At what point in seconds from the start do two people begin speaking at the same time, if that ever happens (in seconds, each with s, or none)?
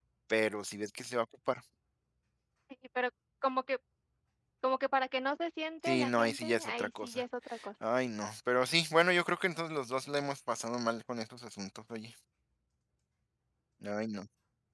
5.8 s